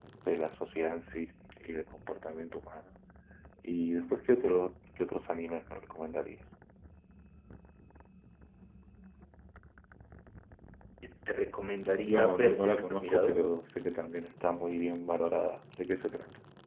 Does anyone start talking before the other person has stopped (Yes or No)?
Yes